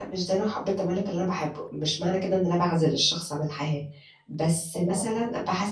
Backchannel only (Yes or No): Yes